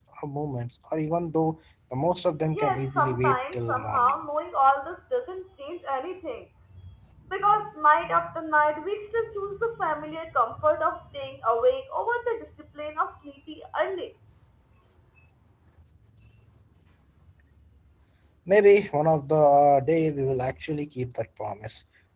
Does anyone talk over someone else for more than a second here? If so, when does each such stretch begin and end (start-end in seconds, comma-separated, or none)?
2.5-4.1